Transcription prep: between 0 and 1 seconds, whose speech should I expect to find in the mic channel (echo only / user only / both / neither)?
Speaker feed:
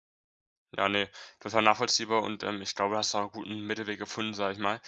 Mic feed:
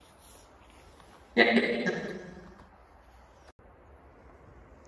neither